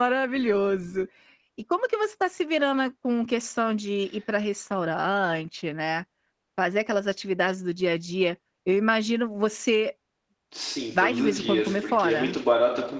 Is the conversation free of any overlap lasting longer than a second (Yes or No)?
No